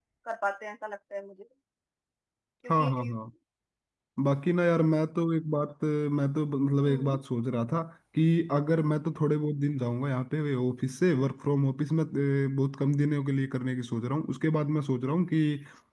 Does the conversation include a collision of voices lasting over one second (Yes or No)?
No